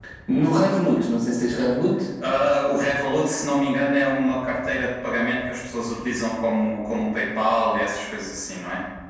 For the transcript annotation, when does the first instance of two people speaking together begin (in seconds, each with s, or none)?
none